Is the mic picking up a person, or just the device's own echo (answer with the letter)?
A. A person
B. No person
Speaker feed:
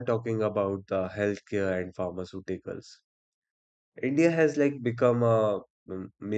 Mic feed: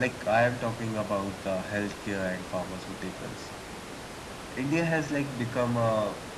B